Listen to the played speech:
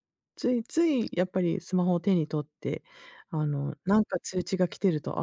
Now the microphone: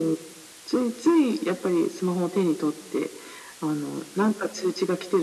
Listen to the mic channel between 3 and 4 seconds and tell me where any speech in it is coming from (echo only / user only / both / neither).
echo only